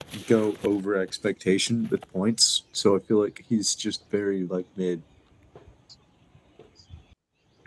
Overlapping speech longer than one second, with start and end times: none

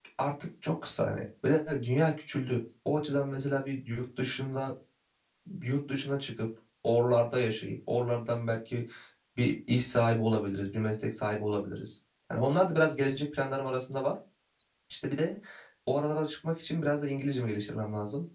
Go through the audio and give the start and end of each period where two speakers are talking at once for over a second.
none

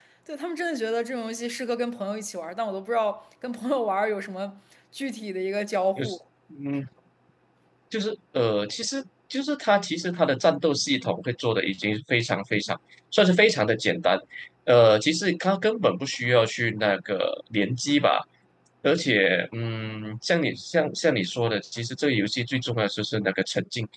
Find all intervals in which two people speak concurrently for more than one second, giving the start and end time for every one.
none

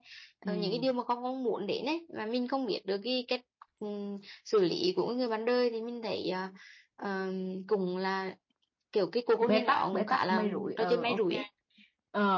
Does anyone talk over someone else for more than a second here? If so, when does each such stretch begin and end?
9.4-11.2

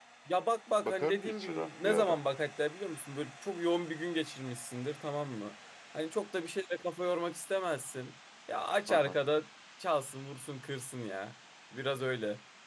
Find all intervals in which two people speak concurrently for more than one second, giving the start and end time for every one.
0.8-2.2

